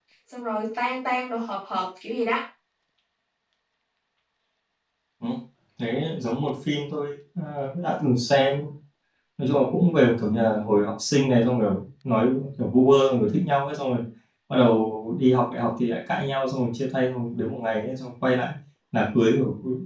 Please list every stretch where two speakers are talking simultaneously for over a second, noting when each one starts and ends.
none

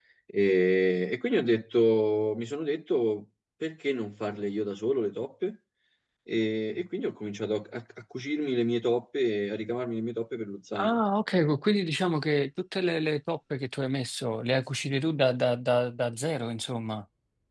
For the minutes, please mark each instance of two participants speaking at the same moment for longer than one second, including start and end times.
none

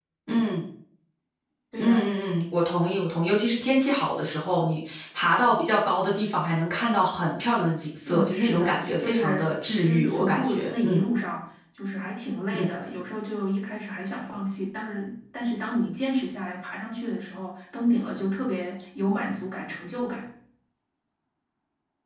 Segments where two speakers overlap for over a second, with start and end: 8.1-11.0

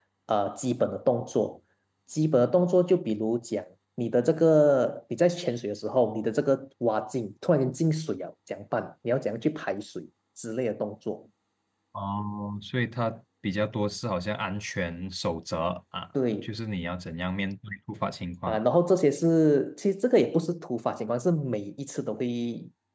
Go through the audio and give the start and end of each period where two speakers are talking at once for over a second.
none

